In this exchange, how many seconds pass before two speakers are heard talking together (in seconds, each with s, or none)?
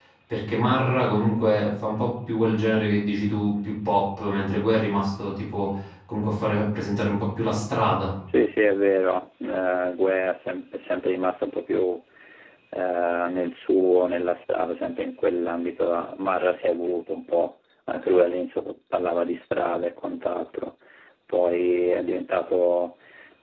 none